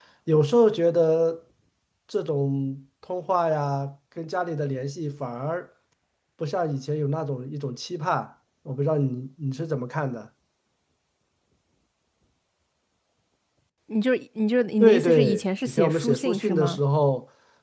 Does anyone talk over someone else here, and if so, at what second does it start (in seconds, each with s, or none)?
14.8 s